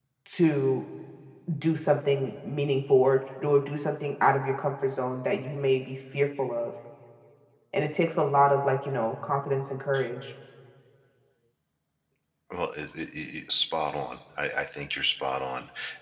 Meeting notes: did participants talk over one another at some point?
No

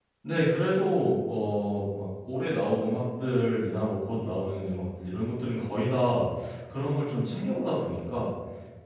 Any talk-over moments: No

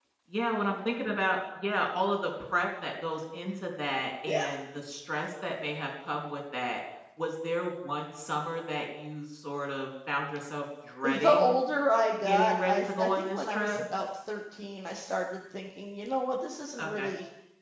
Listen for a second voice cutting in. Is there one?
Yes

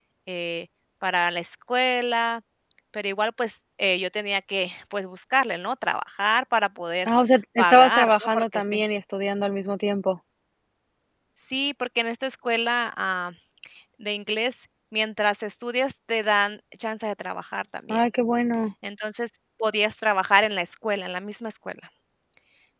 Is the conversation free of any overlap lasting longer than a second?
No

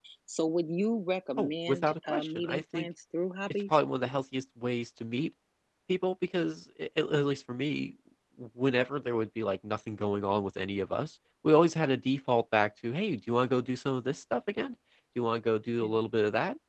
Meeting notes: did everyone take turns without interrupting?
No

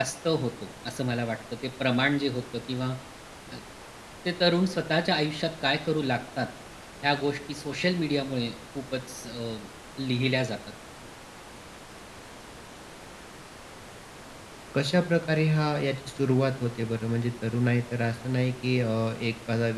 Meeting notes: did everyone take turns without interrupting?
Yes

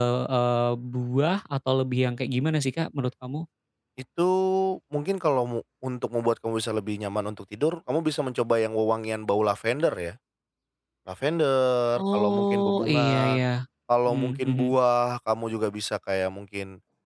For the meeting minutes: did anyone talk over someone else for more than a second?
Yes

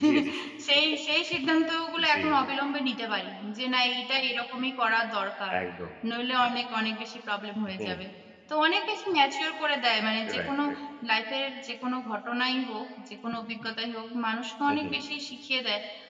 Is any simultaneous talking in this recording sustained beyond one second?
No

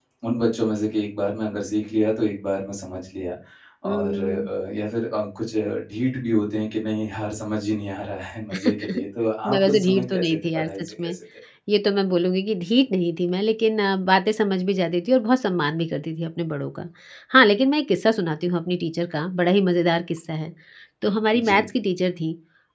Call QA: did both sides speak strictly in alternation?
No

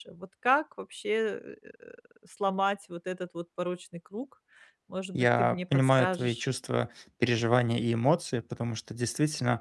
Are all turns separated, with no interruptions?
No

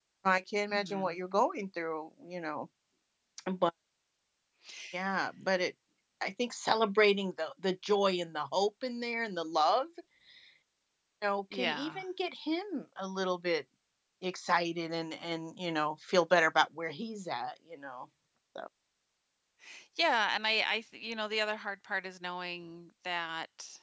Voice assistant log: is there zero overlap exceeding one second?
Yes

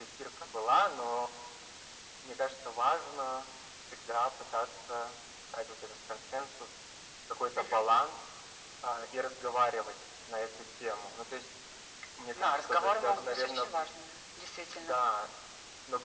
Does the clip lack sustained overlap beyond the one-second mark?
No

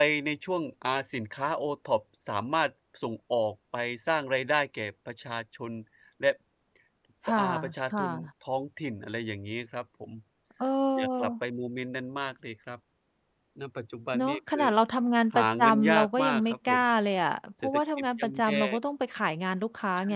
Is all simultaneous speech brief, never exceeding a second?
No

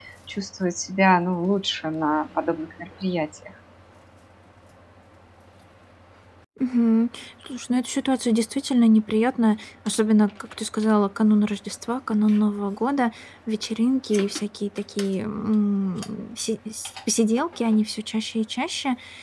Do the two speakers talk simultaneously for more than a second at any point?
No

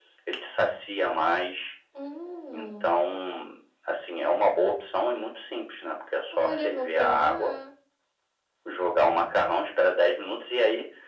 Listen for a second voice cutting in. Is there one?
Yes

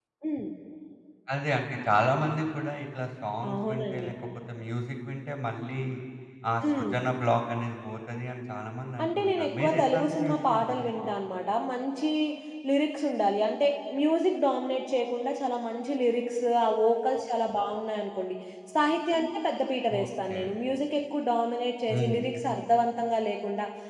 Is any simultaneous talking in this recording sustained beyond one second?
Yes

